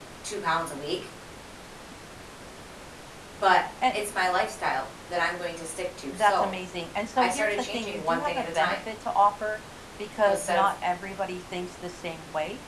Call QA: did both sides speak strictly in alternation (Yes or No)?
No